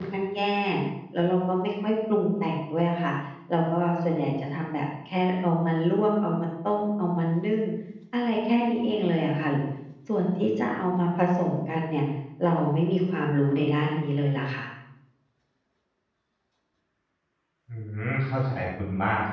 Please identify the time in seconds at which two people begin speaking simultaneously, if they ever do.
none

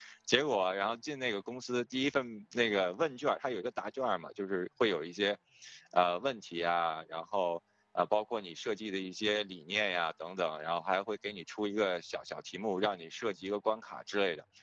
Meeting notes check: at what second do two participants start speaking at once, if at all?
none

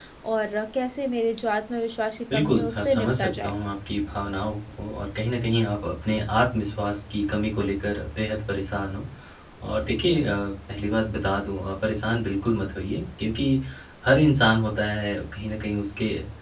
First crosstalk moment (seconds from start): 2.3 s

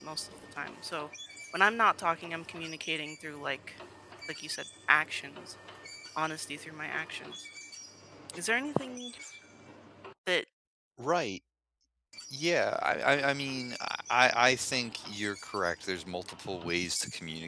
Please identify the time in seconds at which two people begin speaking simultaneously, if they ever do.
none

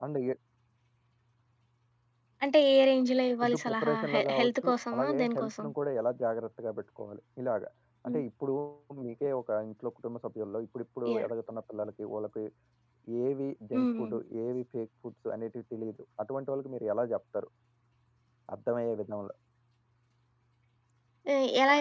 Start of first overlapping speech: 3.4 s

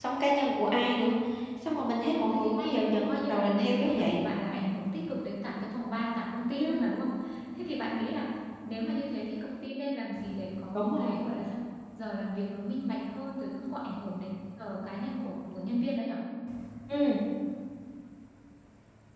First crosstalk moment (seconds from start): 2.1 s

